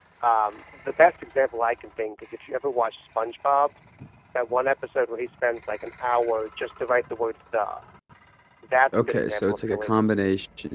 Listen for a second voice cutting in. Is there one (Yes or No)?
Yes